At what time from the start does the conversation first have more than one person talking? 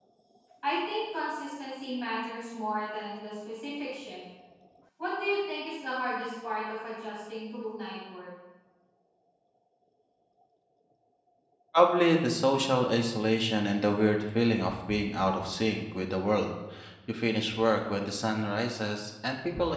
none

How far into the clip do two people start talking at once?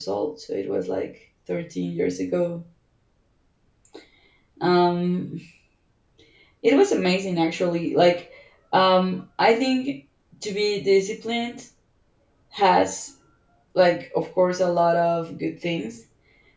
none

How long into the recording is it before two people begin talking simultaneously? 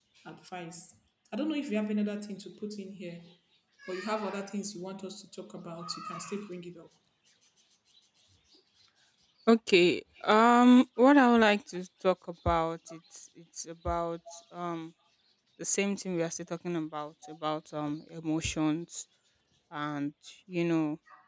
none

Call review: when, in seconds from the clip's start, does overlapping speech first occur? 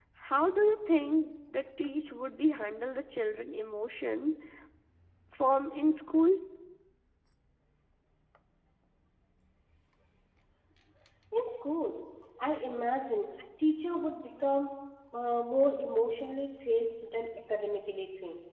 none

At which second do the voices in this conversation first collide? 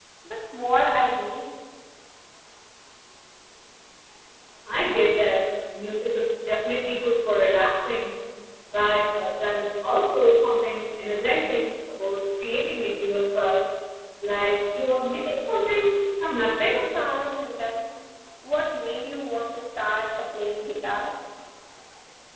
none

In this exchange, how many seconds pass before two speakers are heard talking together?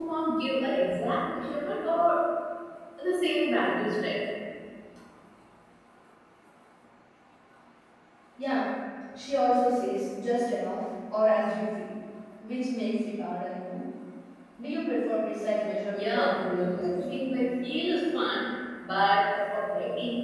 15.9 s

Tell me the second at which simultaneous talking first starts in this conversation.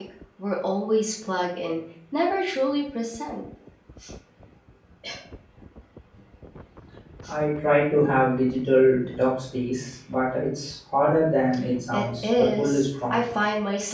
11.9 s

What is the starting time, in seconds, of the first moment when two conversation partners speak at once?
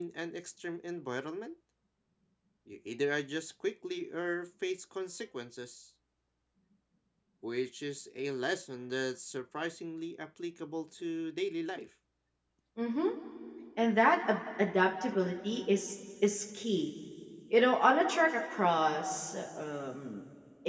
none

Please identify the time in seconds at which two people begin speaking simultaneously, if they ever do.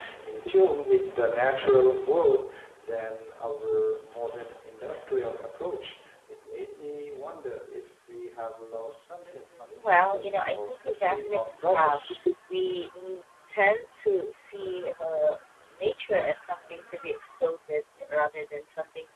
9.3 s

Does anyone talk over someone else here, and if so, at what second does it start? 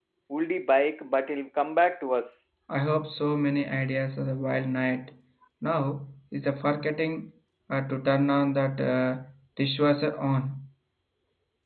none

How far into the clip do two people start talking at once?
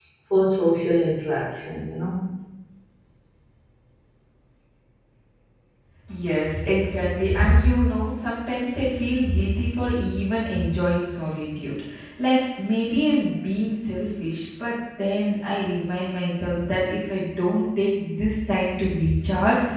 none

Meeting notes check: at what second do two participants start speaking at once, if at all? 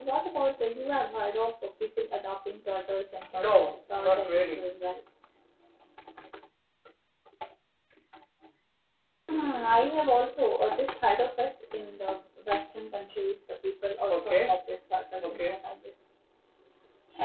3.3 s

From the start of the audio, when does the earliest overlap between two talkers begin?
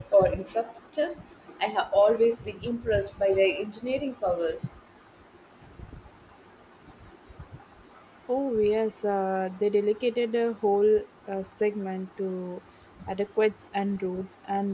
none

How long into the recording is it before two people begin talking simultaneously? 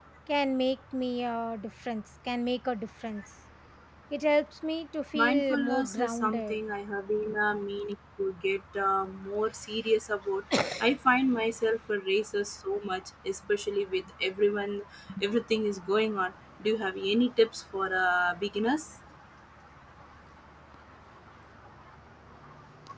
5.1 s

